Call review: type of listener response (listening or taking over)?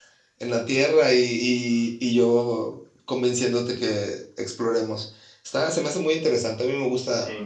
taking over